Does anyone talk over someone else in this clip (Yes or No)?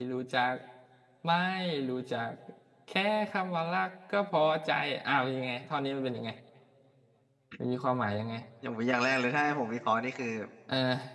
No